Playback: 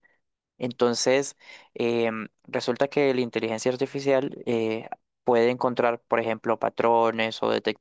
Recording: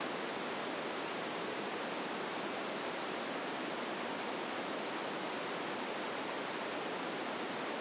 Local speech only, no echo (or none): none